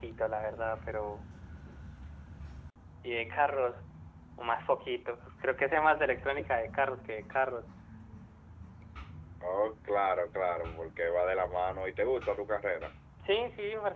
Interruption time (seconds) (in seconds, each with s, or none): none